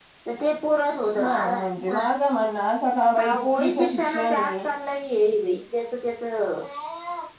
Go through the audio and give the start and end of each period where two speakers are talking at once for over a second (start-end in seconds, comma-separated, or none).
3.2-4.6